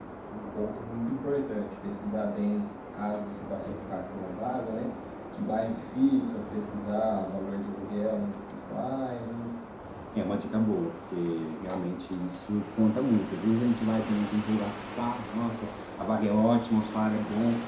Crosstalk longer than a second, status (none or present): none